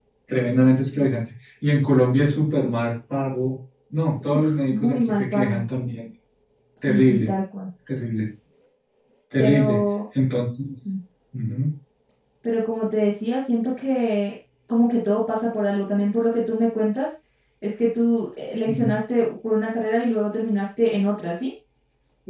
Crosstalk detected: Yes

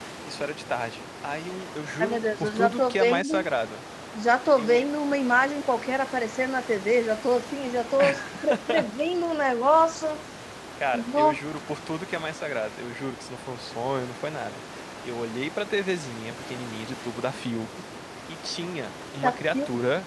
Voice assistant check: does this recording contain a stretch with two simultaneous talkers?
Yes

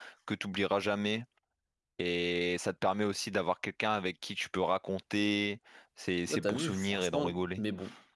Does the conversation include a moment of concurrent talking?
Yes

